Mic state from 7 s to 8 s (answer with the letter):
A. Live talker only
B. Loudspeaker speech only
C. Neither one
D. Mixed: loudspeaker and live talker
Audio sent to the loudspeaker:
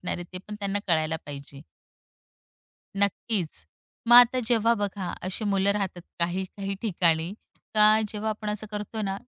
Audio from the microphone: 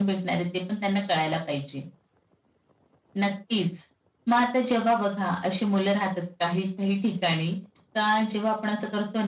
B